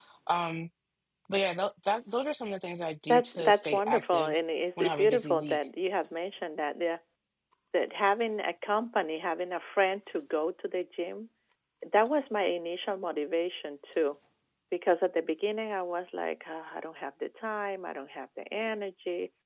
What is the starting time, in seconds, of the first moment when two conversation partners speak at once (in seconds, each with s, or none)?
3.1 s